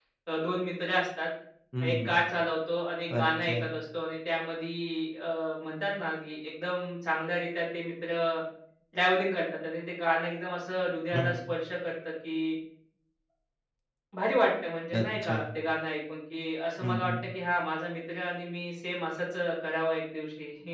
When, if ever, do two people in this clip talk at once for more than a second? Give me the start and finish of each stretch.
none

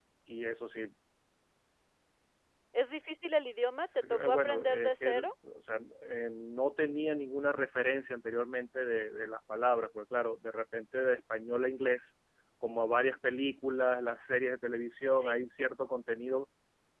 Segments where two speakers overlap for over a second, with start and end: 3.8-5.1

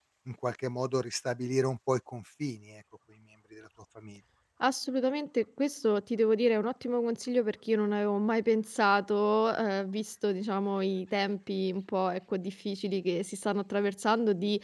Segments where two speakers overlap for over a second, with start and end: none

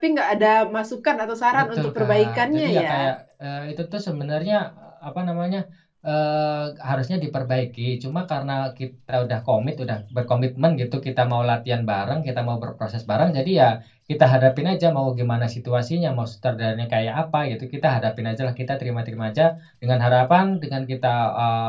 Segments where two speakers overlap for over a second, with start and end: 1.5-3.1

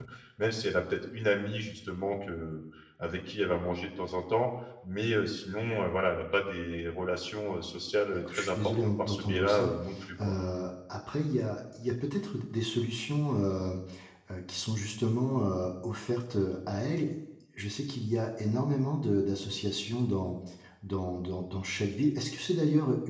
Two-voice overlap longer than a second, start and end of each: 8.3-9.7

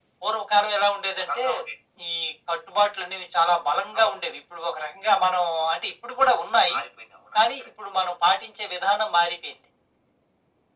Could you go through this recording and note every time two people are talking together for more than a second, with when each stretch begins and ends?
none

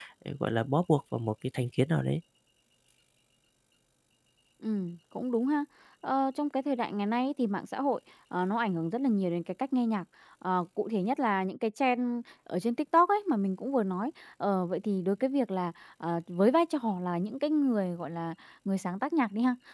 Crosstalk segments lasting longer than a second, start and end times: none

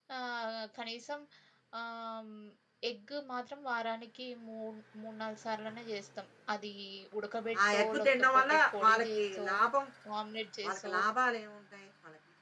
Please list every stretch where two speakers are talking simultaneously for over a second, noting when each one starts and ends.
7.7-9.5

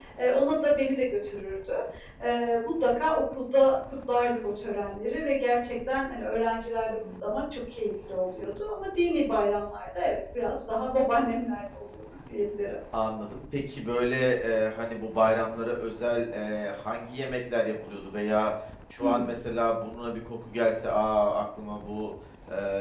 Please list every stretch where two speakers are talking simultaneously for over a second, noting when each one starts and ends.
none

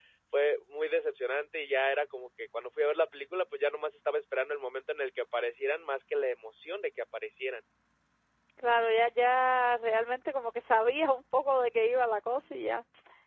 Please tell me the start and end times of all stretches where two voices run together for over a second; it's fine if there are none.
none

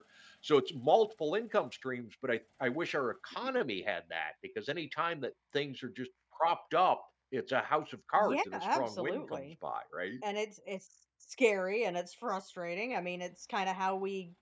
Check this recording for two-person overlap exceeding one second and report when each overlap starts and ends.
8.2-9.4

